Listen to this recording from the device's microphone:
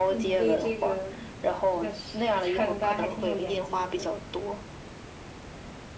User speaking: Yes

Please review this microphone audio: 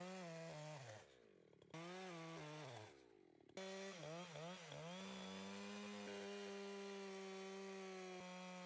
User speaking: No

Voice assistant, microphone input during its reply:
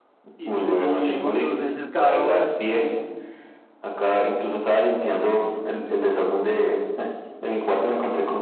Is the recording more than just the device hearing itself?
Yes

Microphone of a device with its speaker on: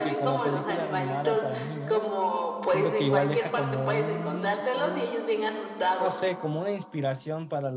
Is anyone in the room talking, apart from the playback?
Yes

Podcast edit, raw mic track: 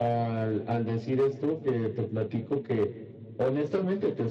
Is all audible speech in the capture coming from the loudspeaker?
Yes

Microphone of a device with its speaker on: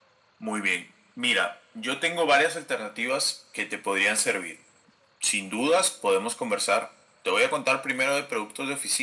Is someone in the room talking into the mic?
No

